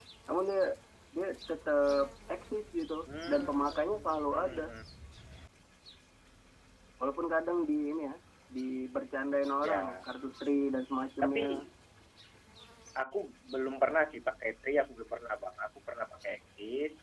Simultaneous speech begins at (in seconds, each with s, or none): 3.3 s